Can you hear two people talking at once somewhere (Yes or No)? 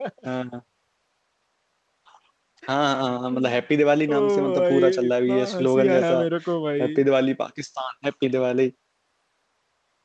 Yes